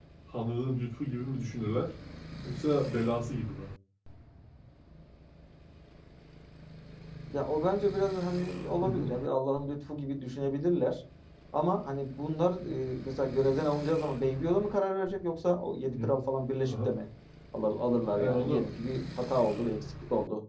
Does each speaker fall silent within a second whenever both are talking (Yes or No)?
Yes